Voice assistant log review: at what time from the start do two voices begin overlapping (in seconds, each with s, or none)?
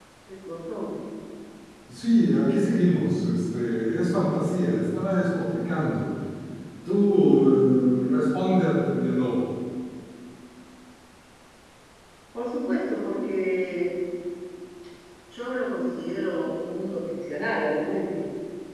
none